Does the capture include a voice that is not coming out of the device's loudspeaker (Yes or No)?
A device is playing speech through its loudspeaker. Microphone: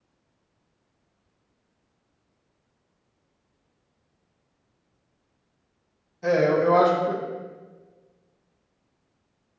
Yes